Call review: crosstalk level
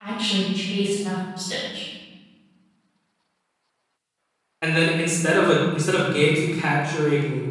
none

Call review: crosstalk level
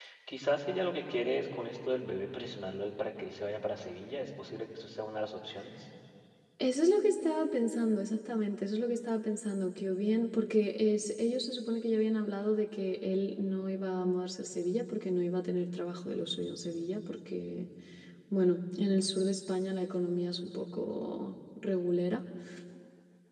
none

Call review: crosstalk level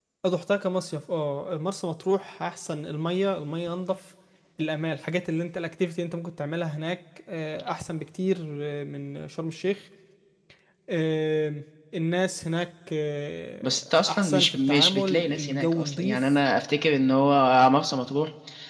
present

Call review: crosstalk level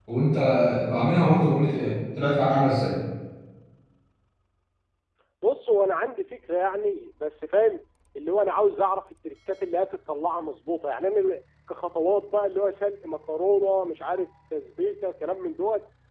none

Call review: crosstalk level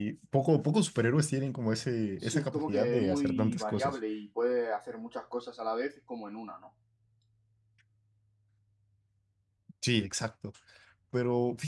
present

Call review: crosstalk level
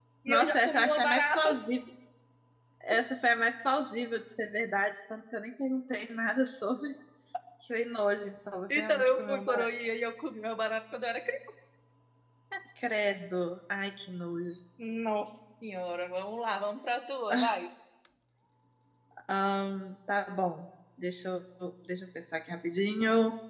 present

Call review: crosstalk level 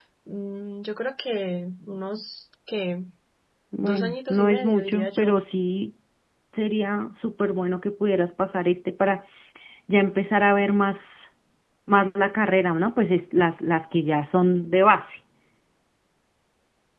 present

